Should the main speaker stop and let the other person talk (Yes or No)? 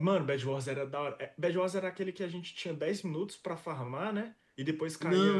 Yes